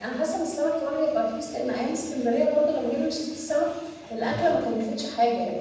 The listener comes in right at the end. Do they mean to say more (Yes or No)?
No